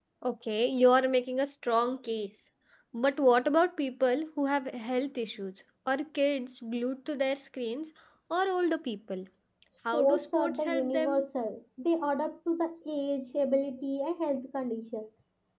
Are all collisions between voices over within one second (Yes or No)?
No